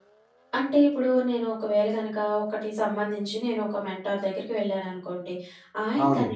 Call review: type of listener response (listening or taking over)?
listening